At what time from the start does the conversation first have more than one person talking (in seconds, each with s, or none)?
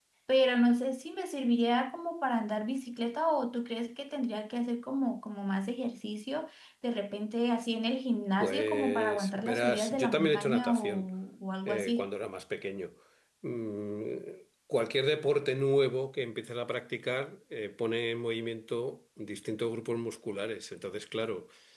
8.4 s